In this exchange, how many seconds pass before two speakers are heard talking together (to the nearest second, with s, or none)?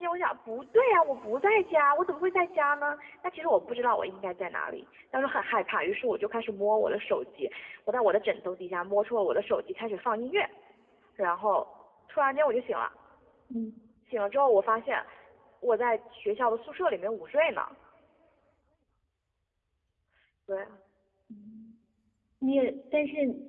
none